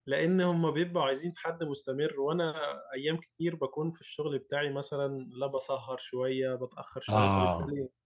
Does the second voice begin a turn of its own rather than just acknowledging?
No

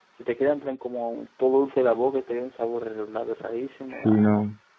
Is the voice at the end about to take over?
Yes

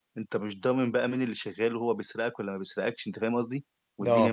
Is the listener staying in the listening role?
Yes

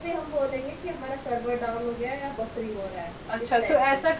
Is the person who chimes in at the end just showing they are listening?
No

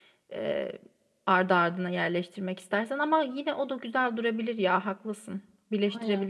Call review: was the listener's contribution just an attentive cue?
No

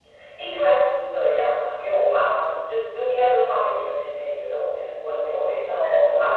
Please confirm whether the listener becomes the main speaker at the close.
Yes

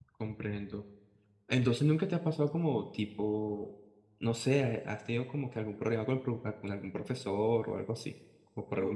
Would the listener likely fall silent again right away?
No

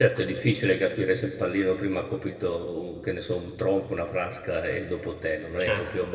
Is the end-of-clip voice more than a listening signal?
Yes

